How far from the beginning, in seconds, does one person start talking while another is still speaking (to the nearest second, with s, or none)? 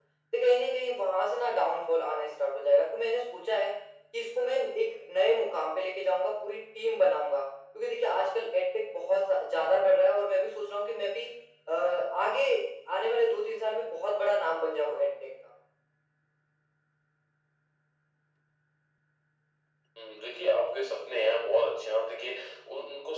none